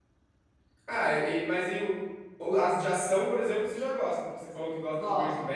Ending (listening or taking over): listening